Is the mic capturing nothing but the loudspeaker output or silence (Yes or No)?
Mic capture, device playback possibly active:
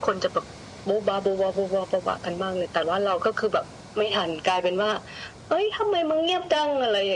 Yes